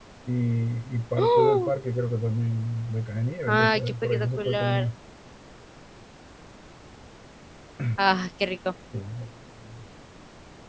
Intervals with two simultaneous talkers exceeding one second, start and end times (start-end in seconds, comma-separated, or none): 3.5-4.9